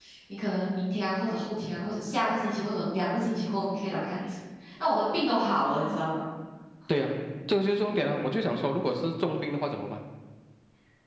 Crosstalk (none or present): none